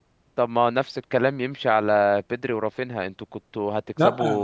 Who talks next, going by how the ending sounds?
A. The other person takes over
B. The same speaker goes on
B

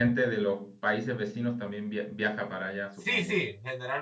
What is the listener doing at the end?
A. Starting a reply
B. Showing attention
A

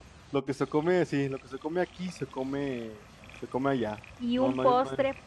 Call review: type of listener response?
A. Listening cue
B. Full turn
B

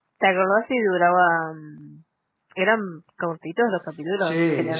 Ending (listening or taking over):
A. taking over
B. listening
A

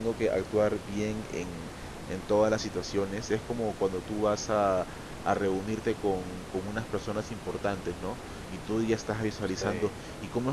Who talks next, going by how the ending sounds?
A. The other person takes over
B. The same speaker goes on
B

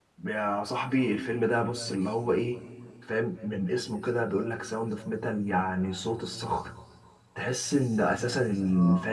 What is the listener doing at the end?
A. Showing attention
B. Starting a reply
A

